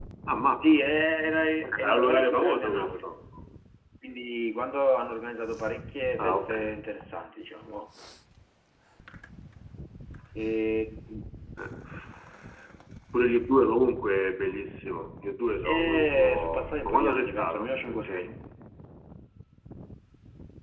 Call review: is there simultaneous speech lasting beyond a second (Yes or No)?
Yes